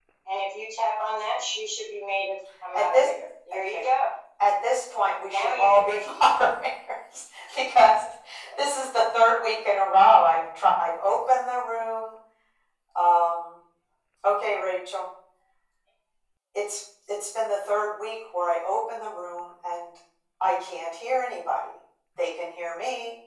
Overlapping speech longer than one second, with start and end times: 5.3-6.5

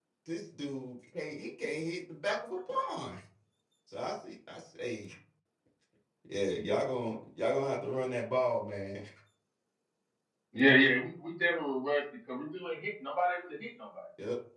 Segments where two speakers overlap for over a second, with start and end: none

